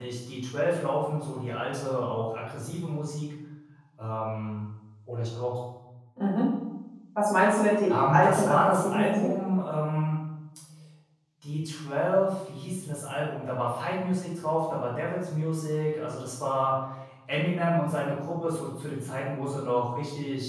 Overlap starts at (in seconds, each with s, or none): 7.9 s